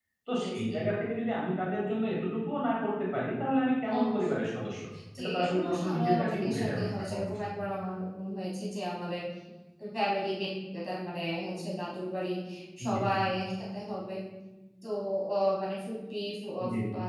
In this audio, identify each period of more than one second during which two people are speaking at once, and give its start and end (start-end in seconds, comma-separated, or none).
5.2-7.4